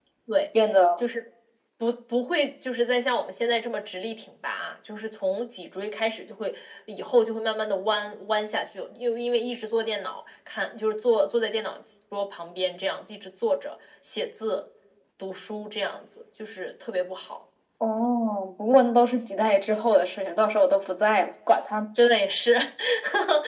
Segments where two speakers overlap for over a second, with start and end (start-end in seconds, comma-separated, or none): none